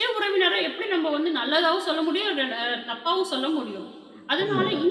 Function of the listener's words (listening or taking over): listening